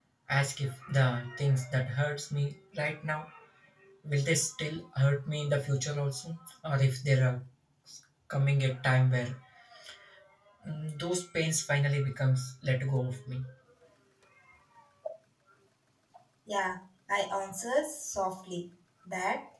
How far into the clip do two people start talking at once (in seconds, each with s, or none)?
none